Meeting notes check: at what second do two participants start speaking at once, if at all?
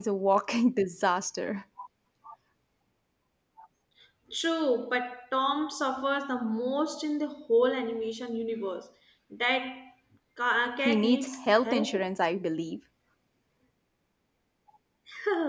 10.8 s

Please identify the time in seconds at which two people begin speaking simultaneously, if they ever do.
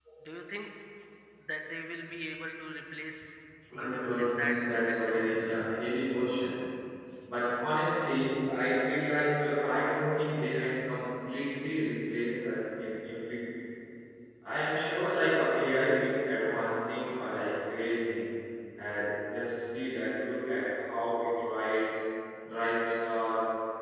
3.7 s

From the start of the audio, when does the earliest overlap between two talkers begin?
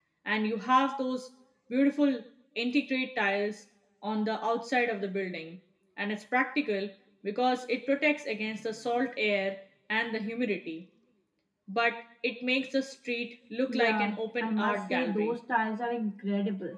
13.7 s

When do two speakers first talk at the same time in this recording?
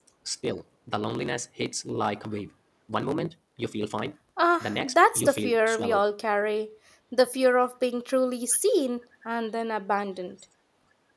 4.6 s

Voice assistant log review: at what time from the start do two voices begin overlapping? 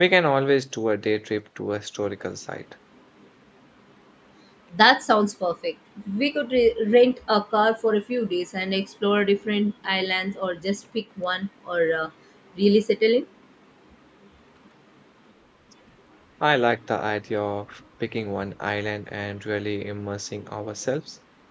none

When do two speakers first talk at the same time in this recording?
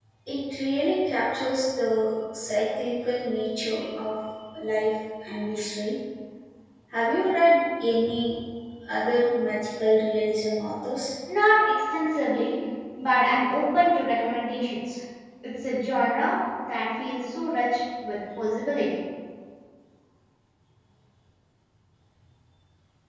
none

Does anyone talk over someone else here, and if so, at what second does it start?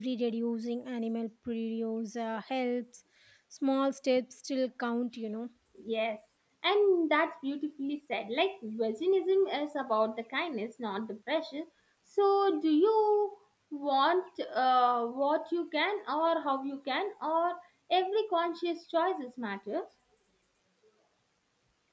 none

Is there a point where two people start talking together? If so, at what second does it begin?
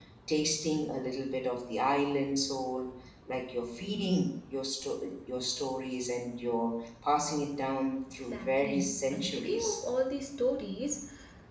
8.3 s

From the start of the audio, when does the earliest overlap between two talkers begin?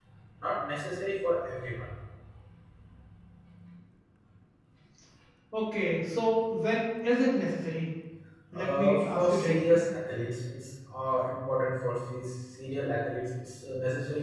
8.5 s

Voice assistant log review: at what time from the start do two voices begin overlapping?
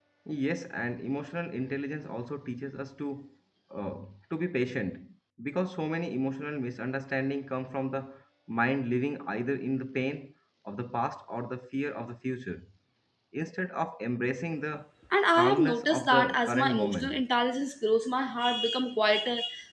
15.3 s

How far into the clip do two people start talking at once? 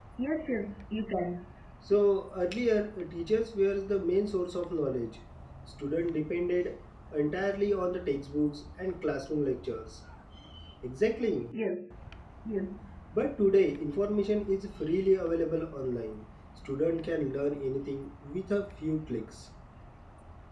none

